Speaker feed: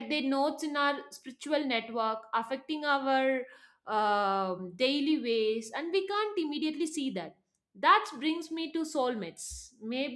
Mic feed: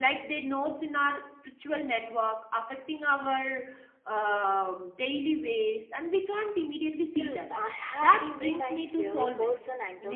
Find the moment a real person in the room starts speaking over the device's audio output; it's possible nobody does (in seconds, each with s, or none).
7.1 s